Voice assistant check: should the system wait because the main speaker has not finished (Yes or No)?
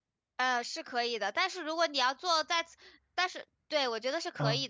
Yes